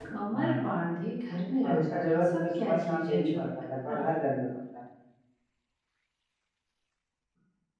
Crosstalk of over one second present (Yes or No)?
Yes